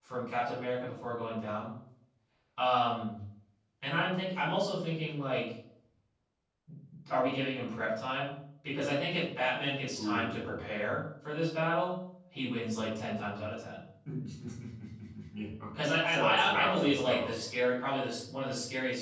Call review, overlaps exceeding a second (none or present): present